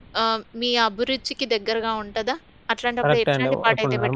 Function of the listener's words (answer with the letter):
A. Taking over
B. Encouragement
A